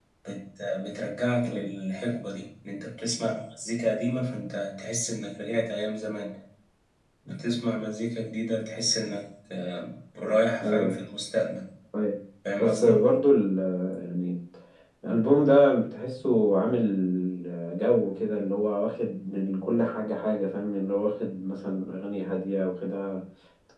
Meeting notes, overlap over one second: none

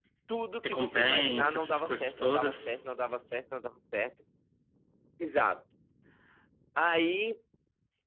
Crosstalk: present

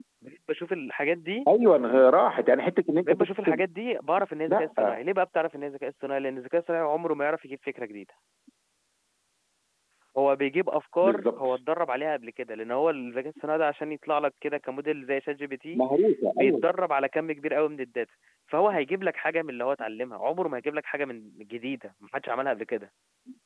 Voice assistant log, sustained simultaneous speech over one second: none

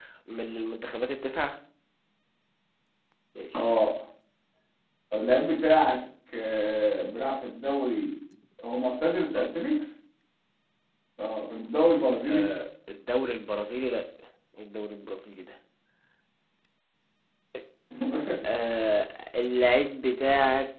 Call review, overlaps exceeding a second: none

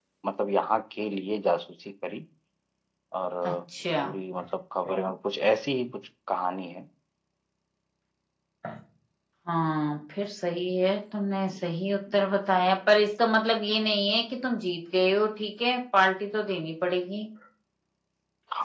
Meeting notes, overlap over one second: none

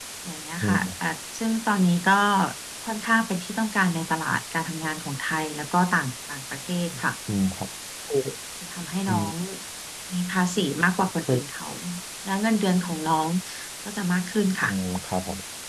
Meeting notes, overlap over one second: none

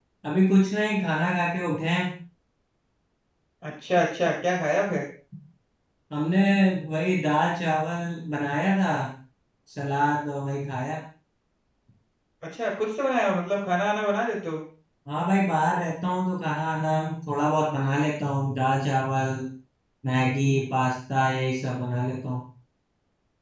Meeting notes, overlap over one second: none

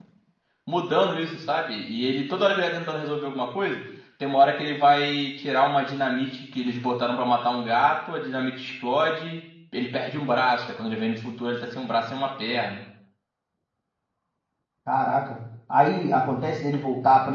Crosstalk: none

